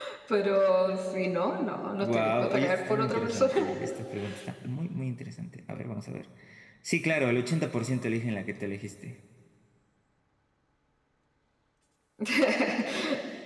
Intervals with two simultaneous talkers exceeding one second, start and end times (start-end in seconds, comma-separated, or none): 2.0-3.7